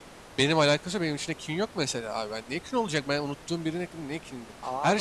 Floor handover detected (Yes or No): No